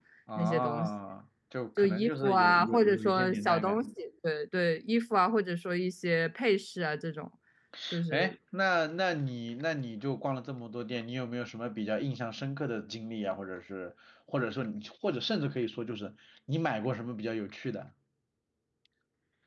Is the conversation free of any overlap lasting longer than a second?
No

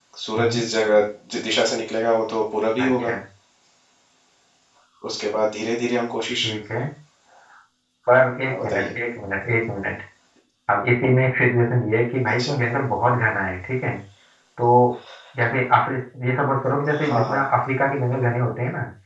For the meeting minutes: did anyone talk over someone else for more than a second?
No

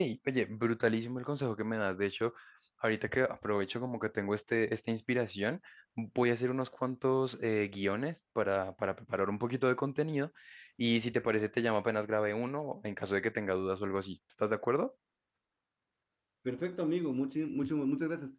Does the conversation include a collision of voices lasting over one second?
No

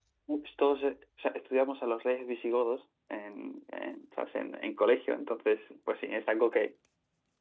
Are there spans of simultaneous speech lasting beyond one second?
No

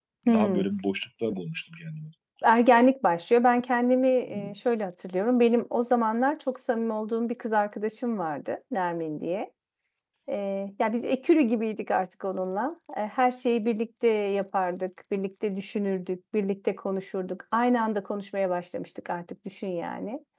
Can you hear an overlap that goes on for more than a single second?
No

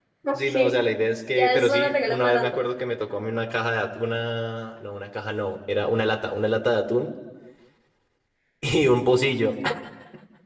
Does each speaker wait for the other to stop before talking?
No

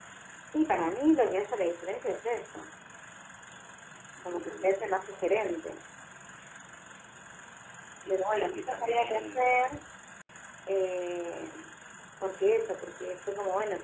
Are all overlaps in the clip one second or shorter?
No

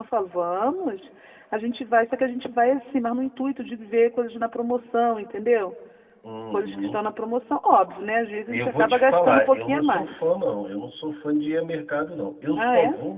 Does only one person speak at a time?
No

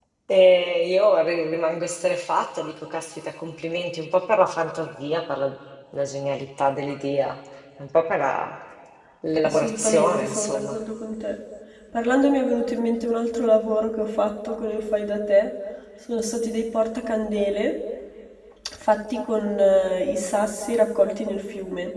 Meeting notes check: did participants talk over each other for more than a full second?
Yes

